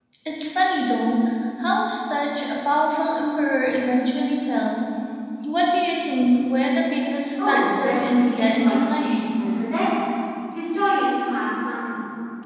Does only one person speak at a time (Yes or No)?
No